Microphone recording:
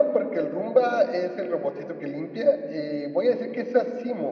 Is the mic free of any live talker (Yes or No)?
Yes